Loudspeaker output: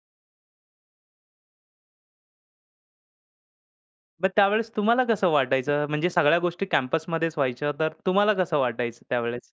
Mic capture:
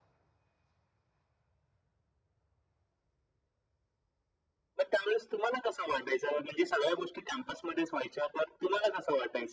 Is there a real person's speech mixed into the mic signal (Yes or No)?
No